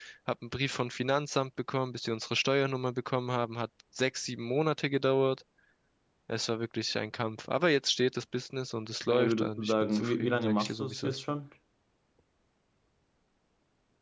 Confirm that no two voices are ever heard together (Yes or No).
No